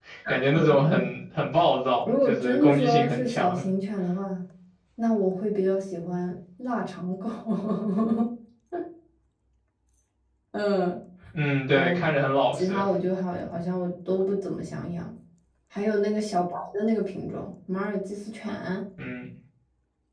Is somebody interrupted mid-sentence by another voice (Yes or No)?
Yes